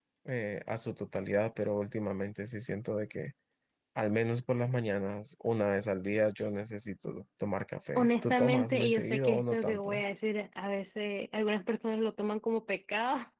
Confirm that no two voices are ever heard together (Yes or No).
No